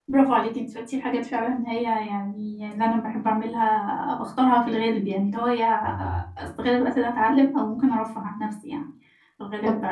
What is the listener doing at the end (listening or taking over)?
listening